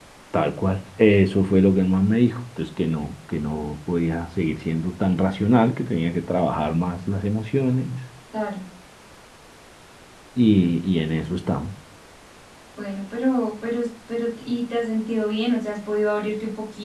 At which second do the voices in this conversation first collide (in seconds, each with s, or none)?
none